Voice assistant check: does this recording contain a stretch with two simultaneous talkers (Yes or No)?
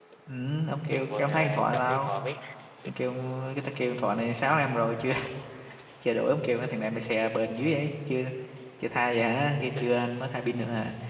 Yes